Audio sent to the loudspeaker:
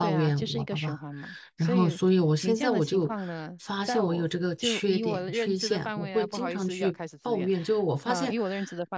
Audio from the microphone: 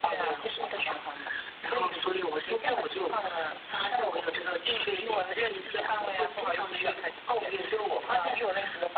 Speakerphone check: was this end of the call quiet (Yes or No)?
Yes